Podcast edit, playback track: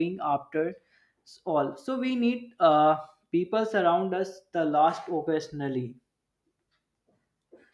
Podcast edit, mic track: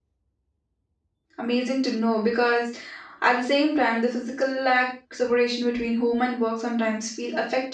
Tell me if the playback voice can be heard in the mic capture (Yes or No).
No